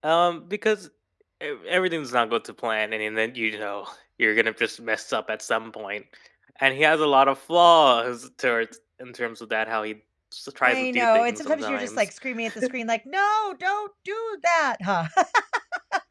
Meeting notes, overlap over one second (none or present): present